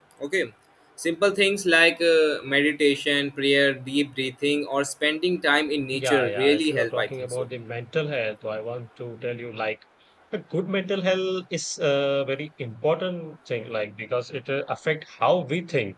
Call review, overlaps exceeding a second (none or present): present